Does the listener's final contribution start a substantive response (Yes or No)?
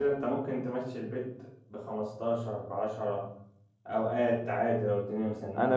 Yes